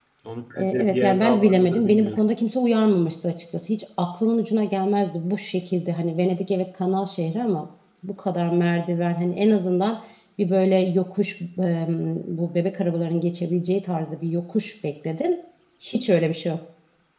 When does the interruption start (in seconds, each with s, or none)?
0.6 s